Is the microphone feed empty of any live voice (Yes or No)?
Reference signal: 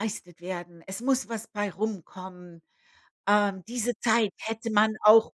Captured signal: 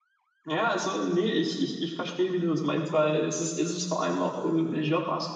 No